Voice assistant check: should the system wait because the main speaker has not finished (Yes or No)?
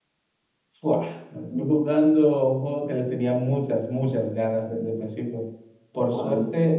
Yes